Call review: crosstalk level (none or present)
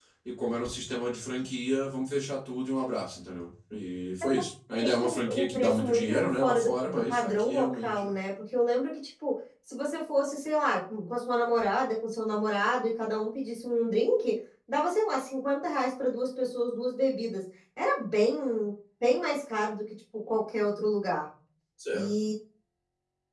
present